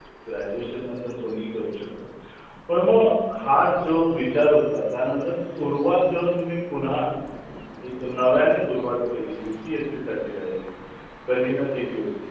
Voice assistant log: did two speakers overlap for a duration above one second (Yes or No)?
No